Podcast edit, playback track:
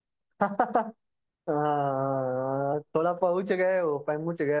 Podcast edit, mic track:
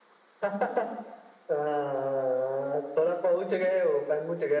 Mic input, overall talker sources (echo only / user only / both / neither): echo only